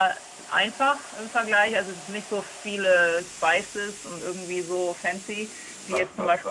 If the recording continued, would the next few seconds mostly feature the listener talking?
Yes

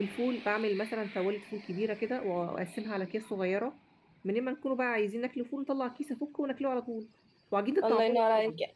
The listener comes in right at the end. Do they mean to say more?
Yes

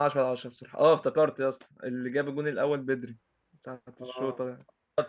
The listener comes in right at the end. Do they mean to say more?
No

